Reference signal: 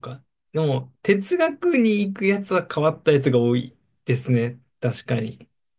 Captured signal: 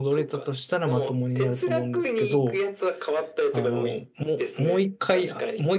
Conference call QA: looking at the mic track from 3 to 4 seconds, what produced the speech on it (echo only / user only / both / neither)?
both